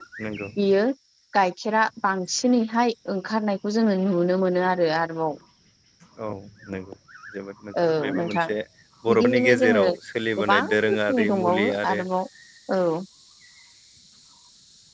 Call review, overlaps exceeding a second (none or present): present